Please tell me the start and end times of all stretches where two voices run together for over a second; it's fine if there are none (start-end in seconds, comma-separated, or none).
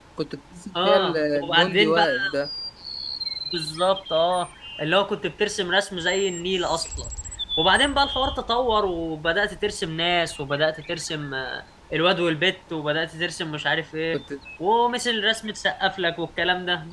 0.8-2.0